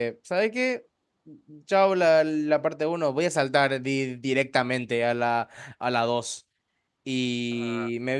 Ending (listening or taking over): listening